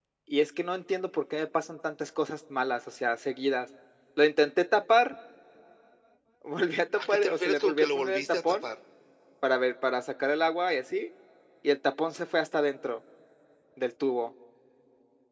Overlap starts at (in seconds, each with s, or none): 7.0 s